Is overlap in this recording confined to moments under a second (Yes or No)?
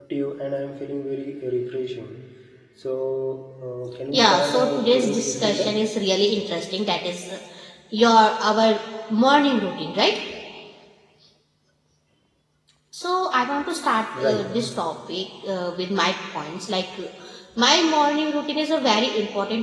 No